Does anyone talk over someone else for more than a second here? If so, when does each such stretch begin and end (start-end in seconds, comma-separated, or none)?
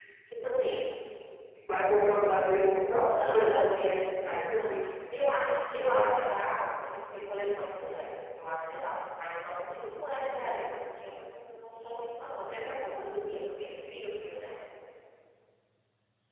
3.2-4.7